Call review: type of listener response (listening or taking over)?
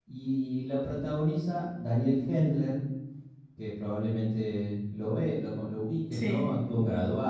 listening